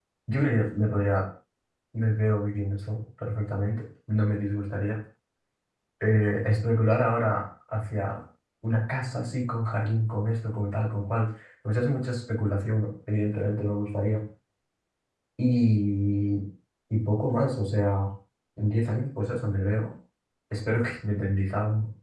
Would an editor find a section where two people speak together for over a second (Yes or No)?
No